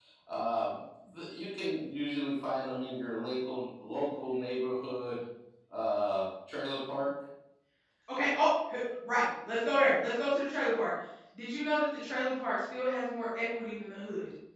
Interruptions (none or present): none